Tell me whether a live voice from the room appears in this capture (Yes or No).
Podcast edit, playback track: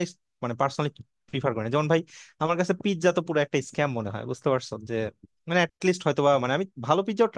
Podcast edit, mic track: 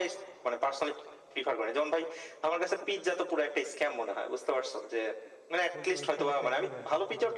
Yes